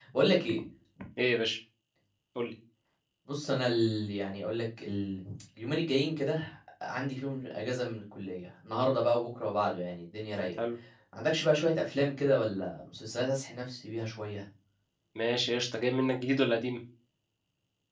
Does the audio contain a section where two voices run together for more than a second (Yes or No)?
No